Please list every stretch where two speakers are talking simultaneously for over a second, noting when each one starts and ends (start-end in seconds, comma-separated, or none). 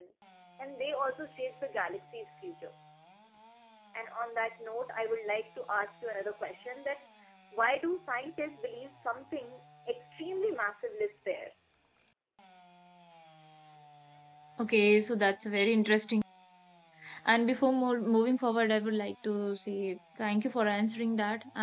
none